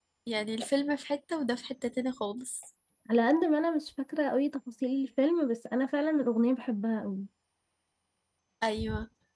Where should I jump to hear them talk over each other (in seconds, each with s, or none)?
none